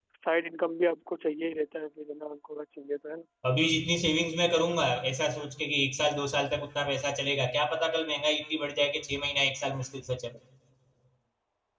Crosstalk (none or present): none